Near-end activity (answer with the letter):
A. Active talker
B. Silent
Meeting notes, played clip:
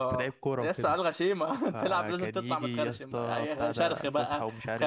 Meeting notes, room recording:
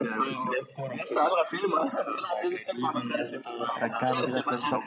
A